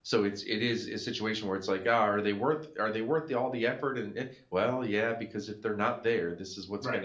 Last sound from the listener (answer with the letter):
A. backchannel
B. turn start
B